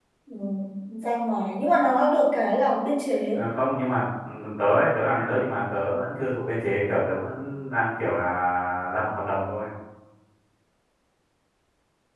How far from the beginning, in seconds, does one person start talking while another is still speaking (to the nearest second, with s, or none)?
none